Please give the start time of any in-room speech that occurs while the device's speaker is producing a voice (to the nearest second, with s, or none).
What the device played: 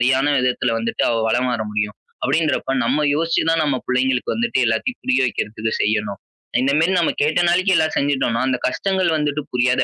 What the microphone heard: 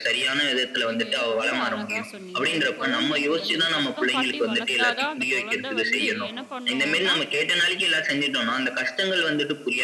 1 s